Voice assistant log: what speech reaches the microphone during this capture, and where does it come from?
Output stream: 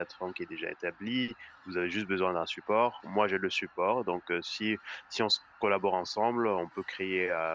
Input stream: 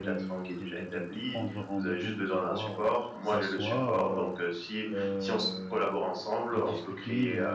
both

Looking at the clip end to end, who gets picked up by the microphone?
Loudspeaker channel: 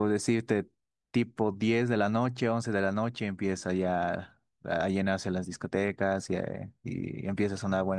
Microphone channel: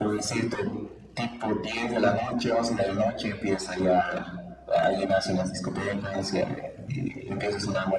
echo only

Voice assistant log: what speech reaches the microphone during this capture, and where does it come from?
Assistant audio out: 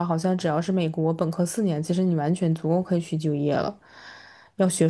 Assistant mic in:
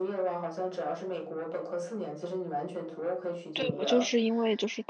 both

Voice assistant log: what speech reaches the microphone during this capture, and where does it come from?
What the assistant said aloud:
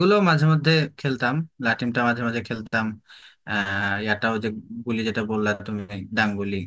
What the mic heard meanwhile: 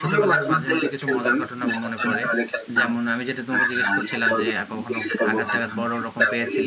both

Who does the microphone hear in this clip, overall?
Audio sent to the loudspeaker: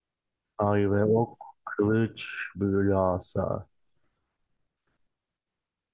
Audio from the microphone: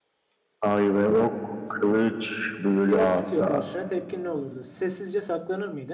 both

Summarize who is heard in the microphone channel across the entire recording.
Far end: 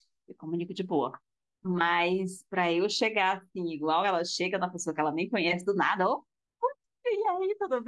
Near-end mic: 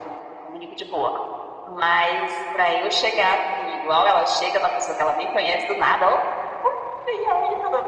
echo only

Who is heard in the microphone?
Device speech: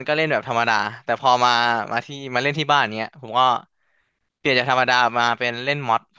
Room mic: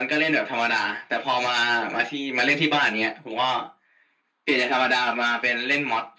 echo only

